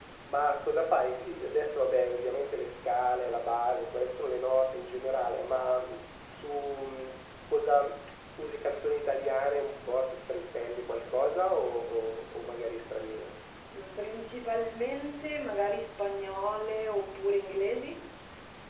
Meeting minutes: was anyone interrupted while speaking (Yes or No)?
No